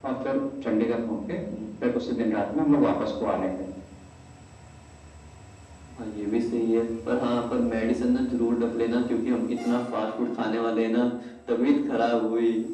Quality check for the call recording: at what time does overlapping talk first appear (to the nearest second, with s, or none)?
none